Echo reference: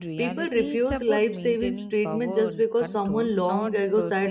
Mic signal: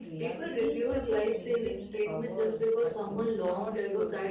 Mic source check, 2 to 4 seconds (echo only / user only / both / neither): echo only